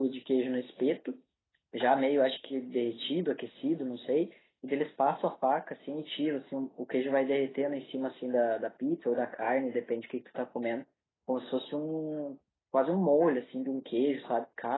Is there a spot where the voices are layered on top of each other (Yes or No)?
No